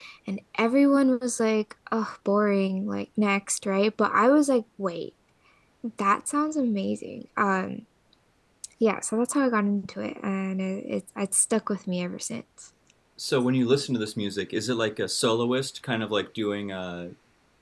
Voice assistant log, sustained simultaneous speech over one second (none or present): none